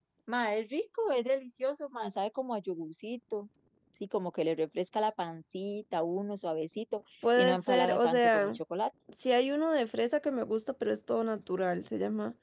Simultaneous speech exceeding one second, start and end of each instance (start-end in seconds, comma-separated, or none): 7.4-8.6